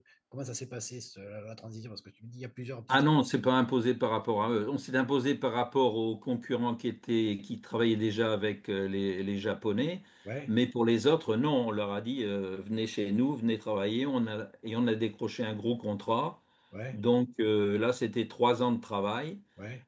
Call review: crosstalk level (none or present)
none